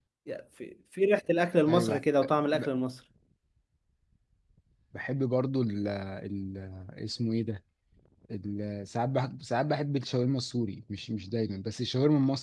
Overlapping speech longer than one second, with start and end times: none

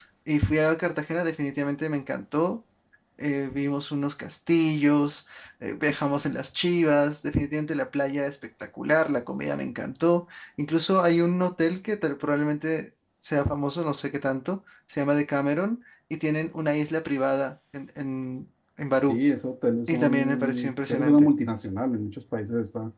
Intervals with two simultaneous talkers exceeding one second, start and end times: 19.9-21.3

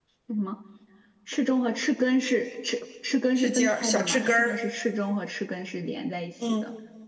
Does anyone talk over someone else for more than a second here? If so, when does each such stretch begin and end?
3.4-4.6

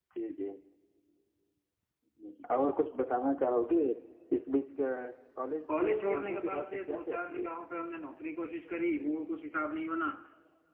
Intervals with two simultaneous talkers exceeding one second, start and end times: 5.8-7.5

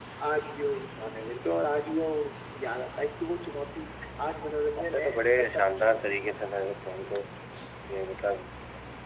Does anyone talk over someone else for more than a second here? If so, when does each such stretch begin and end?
4.8-6.3

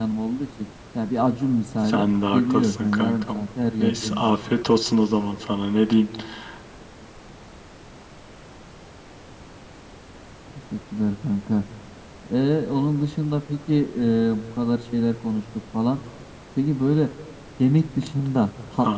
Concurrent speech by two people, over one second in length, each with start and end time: 1.8-3.4

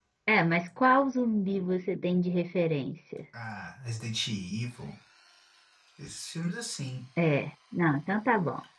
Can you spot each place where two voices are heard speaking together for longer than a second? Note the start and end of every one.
none

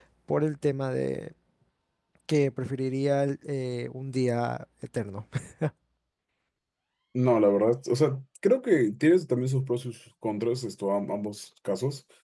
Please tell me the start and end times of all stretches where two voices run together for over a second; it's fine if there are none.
none

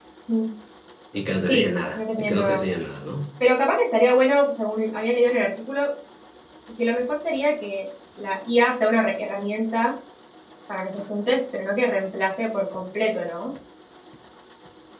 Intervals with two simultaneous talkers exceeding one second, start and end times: 1.4-2.6

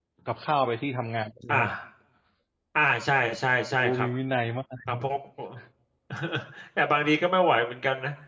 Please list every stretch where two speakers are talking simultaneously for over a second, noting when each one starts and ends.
none

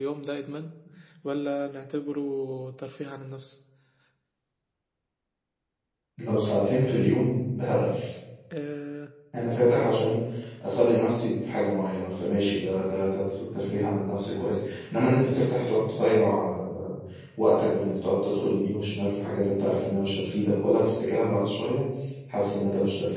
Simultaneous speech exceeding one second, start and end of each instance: none

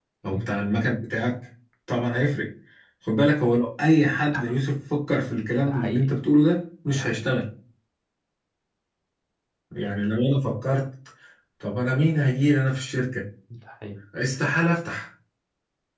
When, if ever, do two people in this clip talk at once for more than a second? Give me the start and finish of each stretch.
none

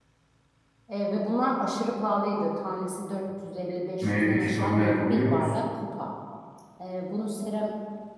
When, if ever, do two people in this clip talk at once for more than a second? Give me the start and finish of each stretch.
4.0-5.5

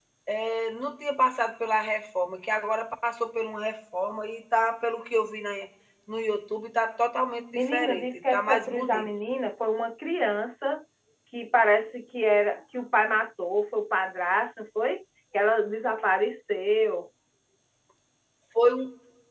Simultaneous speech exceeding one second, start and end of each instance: 7.5-9.1

